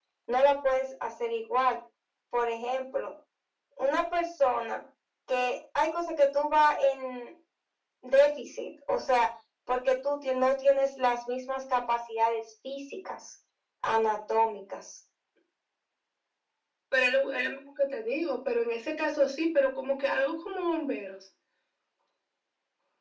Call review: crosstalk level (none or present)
none